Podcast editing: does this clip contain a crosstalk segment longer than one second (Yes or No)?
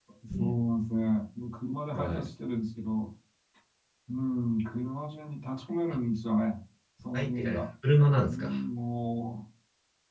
No